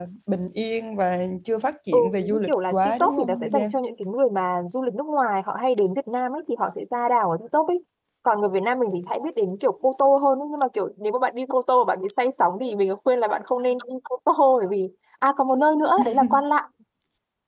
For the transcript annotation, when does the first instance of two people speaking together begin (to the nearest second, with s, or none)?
2 s